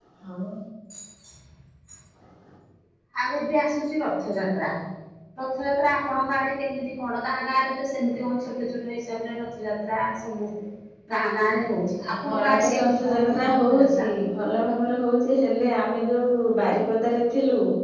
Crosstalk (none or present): present